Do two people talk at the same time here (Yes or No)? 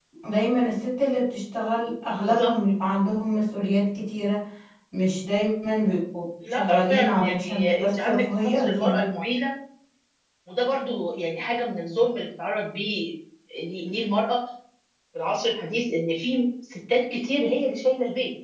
Yes